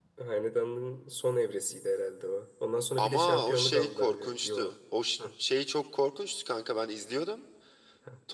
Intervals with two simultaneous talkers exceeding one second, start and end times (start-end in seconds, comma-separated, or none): 3.0-4.8